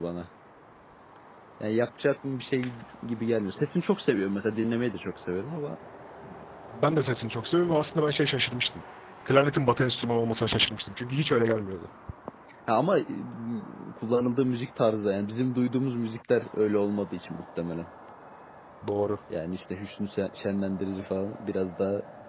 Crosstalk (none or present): none